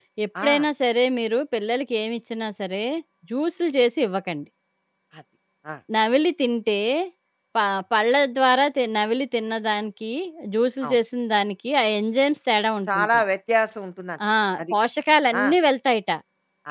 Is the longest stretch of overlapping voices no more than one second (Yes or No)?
Yes